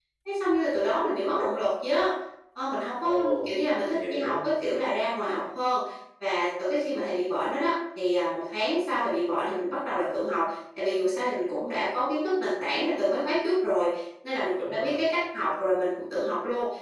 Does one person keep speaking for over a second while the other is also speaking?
Yes, from 3.0 s

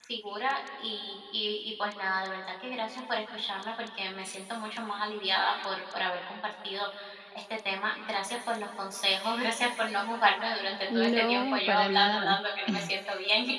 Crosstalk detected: Yes, from 10.9 s

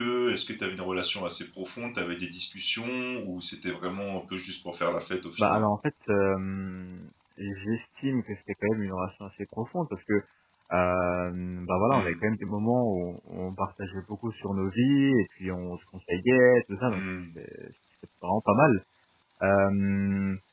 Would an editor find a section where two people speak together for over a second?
No

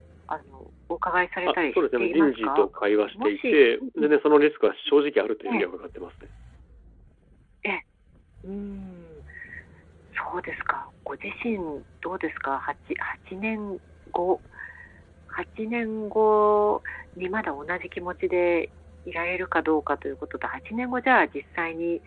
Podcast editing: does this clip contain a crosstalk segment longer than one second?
Yes, from 1.5 s

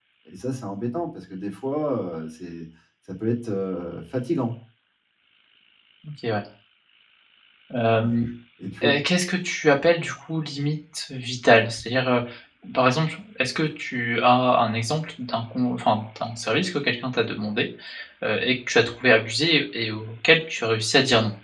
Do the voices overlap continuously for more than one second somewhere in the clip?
No

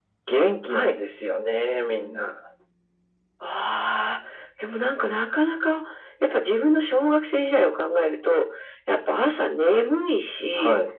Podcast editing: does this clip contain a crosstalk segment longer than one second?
No

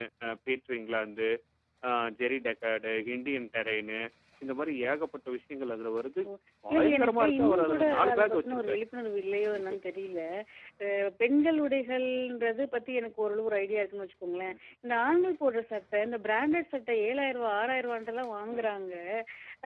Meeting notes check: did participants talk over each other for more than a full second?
Yes, from 6.7 s

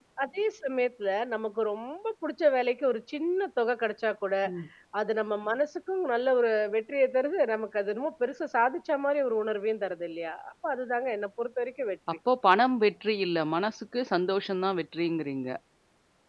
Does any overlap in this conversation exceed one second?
No

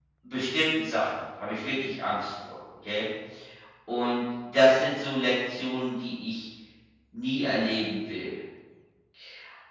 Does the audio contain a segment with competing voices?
No

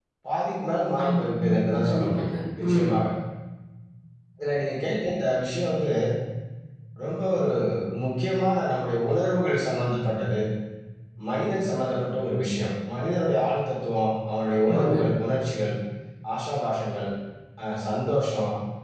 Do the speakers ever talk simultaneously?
Yes, from 1.0 s

